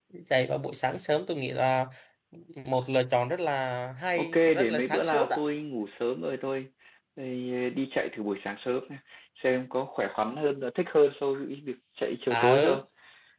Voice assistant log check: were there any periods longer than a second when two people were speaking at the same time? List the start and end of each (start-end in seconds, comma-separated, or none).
4.2-5.4